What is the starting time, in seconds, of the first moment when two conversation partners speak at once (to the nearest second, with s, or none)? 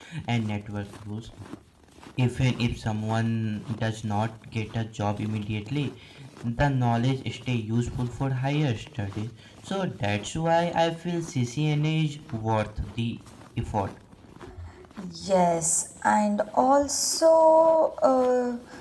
none